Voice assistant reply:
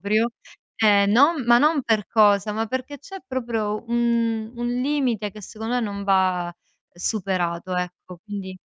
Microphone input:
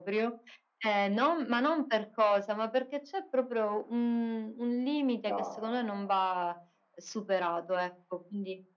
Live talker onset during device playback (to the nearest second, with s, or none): 5 s